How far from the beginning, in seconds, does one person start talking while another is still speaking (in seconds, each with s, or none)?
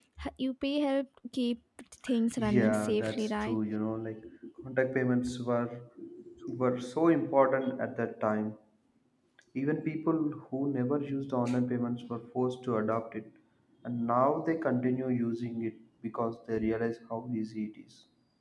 2.4 s